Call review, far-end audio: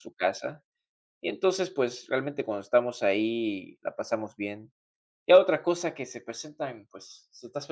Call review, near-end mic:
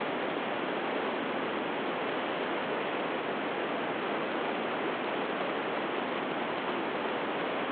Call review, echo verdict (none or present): none